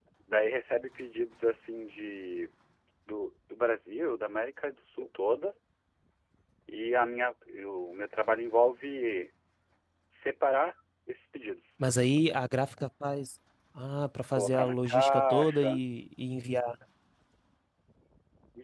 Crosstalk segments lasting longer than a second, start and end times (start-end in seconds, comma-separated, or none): 14.3-15.8